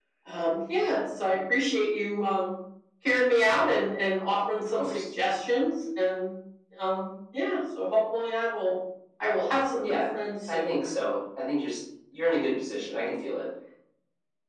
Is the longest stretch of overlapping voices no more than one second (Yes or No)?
Yes